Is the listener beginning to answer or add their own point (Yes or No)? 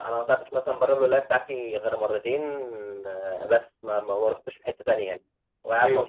Yes